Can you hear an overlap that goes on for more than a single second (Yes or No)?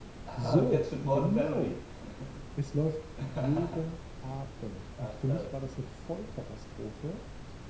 Yes